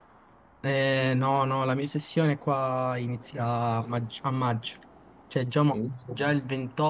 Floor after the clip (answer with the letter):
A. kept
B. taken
A